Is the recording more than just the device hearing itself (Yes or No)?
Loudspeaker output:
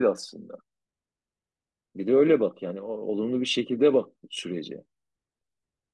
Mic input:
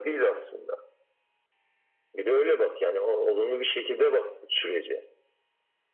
No